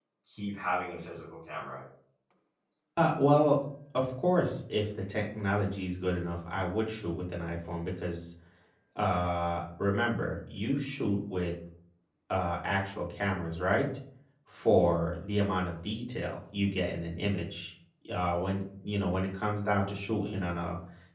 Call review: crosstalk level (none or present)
none